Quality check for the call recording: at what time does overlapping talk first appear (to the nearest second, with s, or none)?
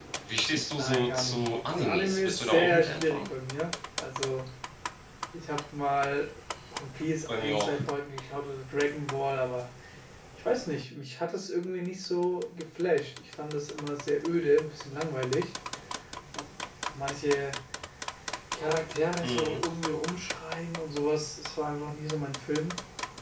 1 s